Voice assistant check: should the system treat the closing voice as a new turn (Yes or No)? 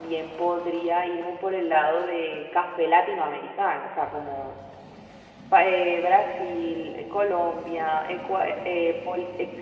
No